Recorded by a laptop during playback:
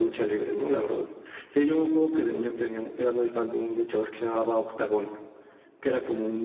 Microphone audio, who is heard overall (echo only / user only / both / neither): echo only